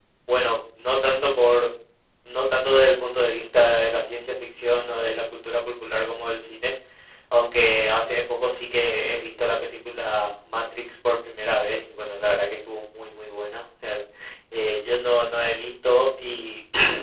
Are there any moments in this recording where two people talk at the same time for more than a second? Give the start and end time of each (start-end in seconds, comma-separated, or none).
none